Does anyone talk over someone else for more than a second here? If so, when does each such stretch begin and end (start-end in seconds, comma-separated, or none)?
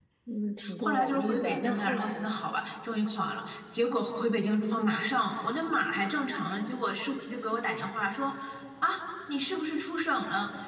0.8-2.4